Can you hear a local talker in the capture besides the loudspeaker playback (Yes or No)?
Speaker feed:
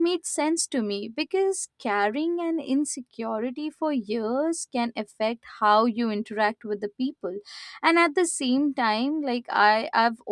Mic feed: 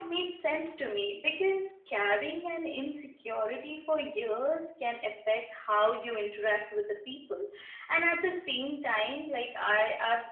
No